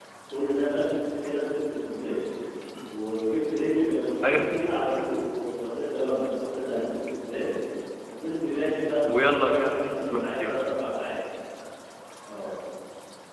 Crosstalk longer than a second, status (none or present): present